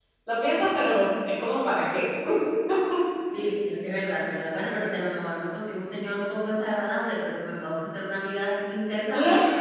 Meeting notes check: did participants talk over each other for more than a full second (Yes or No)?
No